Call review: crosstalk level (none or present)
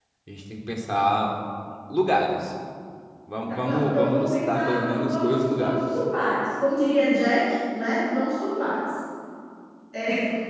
present